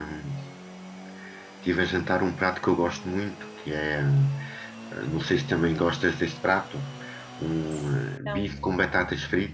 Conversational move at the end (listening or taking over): listening